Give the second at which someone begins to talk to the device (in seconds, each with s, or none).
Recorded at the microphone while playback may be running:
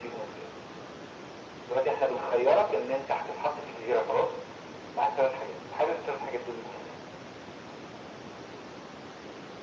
none